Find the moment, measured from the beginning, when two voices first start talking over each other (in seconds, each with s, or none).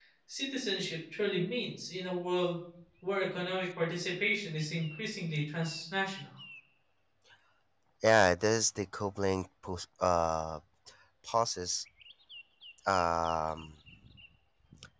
none